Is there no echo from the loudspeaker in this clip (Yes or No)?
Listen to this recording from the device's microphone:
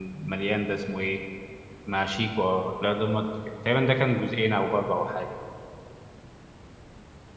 Yes